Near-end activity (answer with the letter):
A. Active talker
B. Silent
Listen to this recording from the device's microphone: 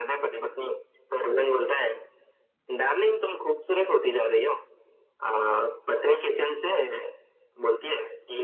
B